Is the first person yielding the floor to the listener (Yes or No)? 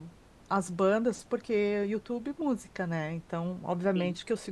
No